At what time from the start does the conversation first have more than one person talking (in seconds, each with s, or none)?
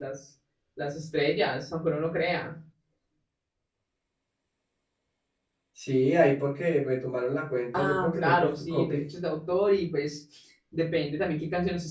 7.7 s